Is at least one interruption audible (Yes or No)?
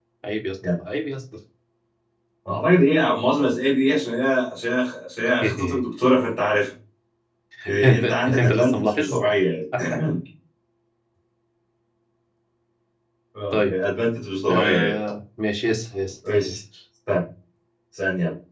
Yes